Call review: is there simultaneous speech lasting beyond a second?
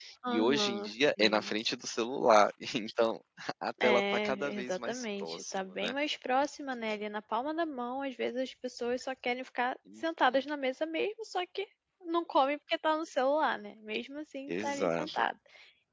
Yes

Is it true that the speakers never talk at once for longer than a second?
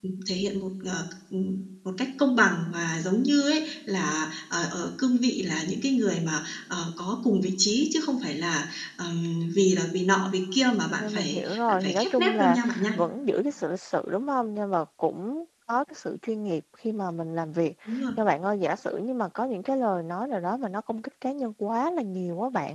No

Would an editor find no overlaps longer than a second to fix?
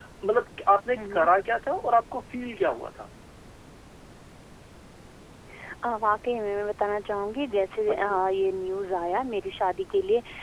Yes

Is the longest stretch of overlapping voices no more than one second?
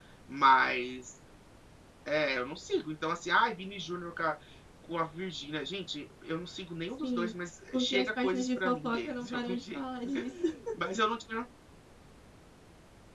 No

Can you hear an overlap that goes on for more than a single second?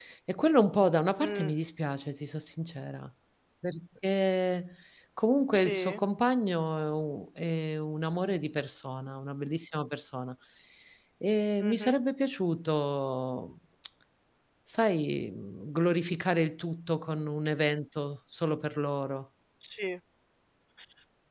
No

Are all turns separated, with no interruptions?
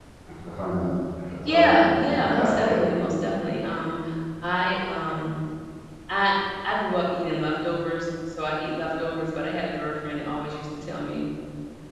No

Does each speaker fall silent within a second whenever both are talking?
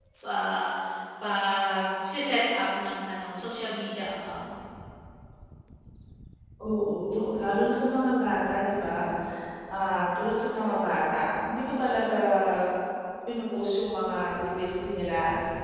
Yes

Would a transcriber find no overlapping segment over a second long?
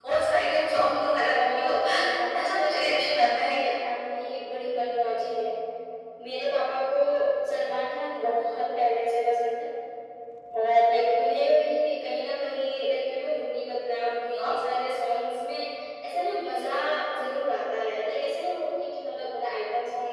No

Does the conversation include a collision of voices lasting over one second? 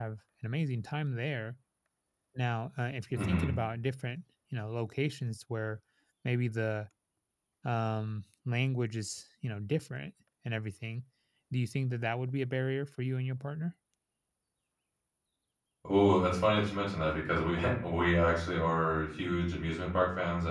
No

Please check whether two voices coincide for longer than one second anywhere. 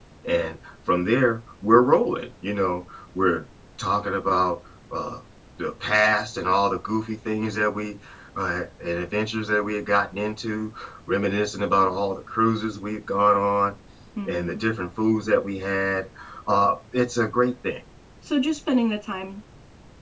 No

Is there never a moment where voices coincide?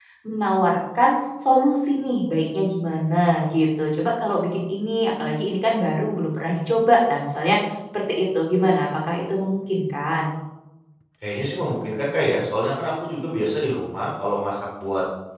Yes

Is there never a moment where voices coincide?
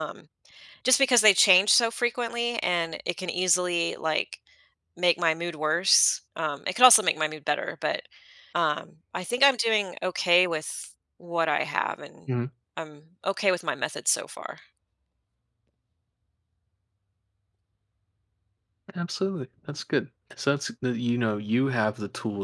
Yes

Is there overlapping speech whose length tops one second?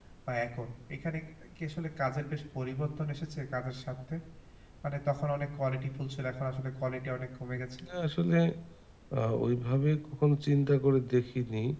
No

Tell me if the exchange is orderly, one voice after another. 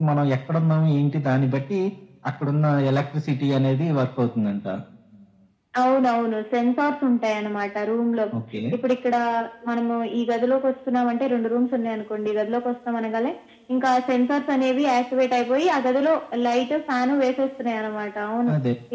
Yes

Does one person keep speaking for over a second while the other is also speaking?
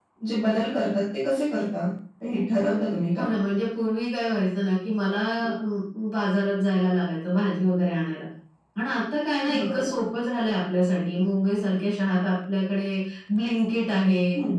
No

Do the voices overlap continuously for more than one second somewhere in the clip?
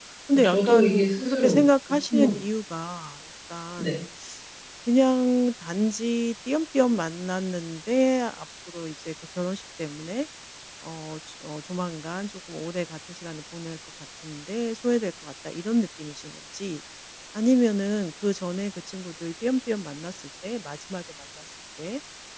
Yes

